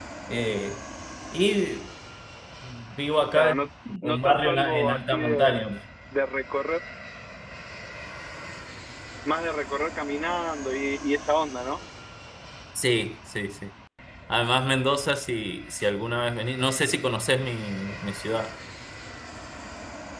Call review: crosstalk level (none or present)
present